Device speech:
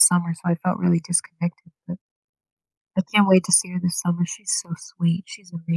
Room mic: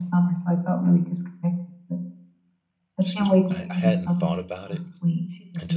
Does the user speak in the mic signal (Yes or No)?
Yes